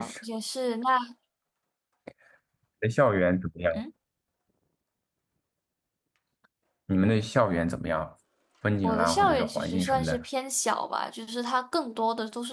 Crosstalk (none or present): present